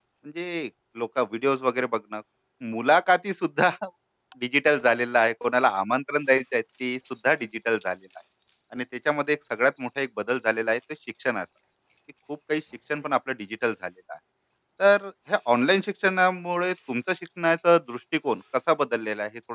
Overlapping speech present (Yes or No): No